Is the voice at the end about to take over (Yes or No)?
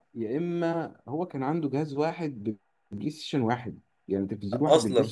No